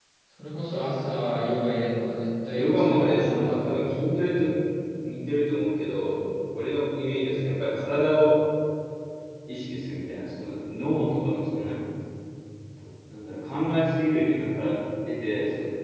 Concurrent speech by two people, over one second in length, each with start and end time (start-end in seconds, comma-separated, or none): 2.5-3.8